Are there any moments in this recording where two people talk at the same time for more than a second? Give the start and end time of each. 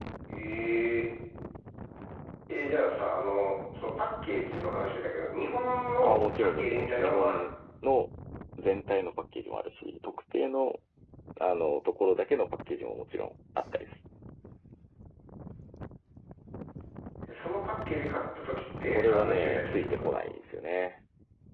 6.0-7.4, 18.9-20.2

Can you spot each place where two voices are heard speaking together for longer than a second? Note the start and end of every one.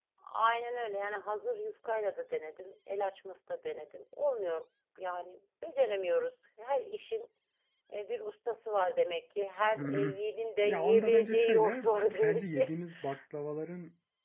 10.6-12.7

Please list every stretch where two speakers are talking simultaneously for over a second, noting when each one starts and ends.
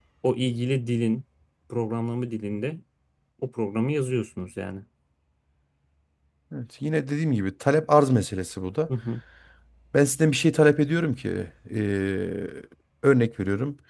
none

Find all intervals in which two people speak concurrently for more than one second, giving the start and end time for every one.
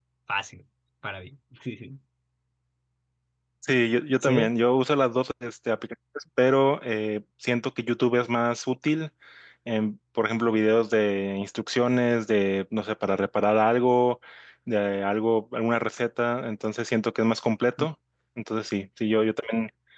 none

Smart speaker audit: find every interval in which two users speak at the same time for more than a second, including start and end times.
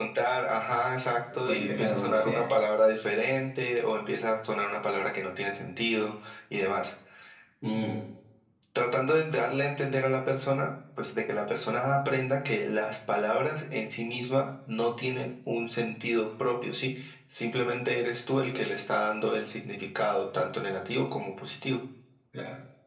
1.0-2.4

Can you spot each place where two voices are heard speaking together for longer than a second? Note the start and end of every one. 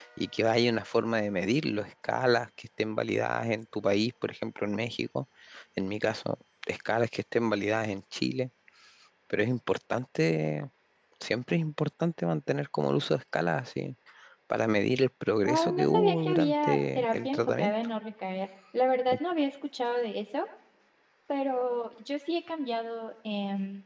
15.5-17.7

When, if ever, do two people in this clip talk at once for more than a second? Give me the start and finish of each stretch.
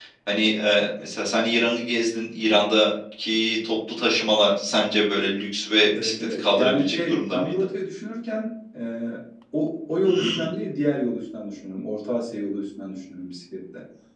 6.0-7.5

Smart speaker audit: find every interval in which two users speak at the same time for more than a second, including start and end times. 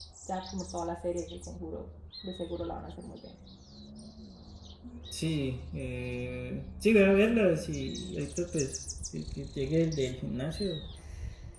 none

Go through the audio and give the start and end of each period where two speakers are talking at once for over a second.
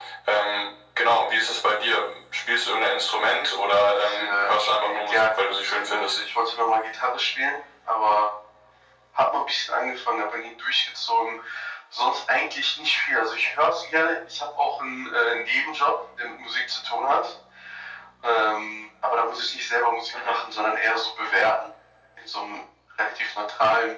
3.9-6.2

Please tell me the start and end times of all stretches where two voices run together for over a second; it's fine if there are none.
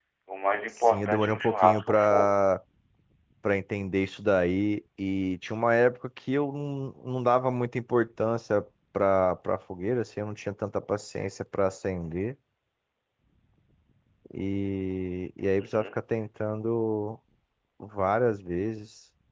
0.8-2.3

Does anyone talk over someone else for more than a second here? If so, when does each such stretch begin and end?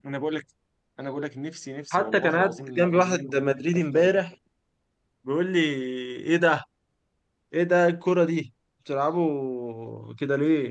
1.9-3.2

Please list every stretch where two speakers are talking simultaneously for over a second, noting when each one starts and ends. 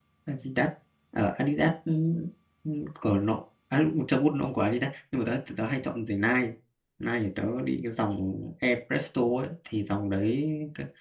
none

